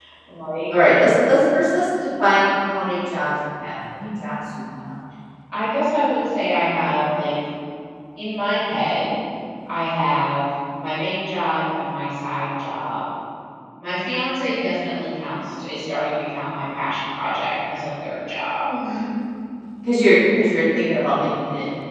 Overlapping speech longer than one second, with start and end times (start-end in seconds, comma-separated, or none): none